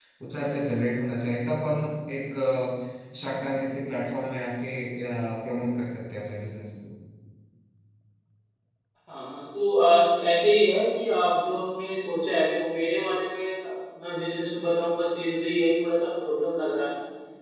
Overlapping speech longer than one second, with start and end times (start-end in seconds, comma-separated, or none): none